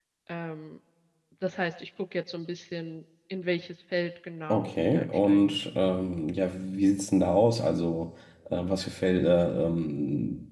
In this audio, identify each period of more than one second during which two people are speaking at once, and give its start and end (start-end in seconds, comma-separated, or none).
4.5-5.9